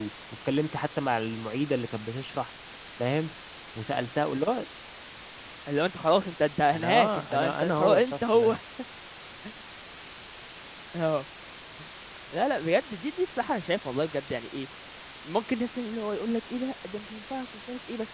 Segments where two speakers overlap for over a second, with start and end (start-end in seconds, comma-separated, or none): 6.7-8.6